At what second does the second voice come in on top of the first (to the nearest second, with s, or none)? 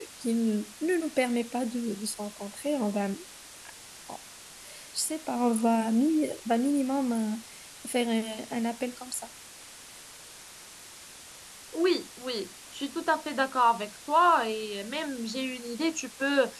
none